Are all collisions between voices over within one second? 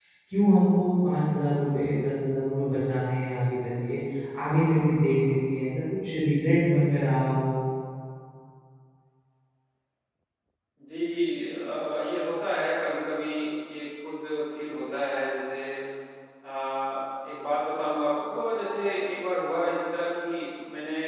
Yes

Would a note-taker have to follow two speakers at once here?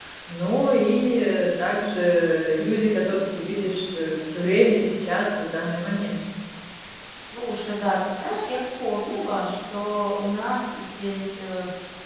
No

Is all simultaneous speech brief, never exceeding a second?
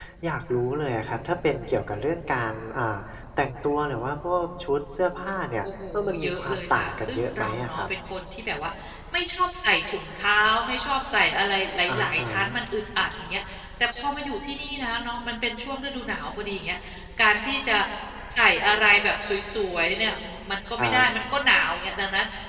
No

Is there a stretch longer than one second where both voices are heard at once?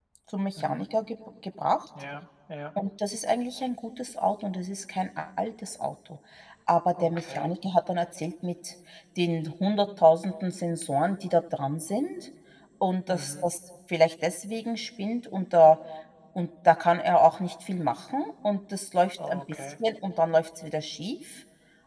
No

